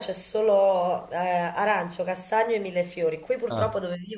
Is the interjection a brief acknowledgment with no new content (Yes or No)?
Yes